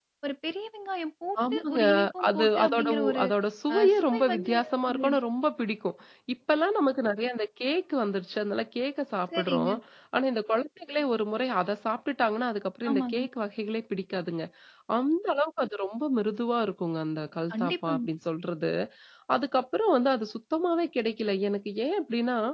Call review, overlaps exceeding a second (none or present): present